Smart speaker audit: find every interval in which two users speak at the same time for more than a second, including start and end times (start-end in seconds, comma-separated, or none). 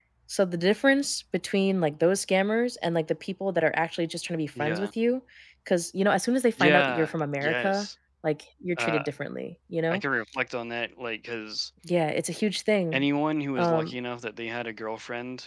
6.6-7.9